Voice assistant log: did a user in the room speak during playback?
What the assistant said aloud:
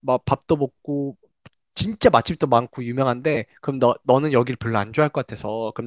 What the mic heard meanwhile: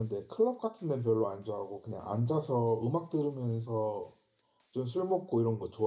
Yes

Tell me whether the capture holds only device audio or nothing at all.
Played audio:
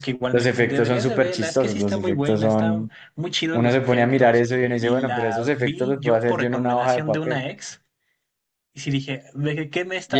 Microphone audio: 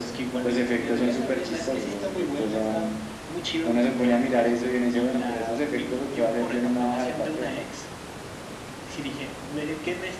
Yes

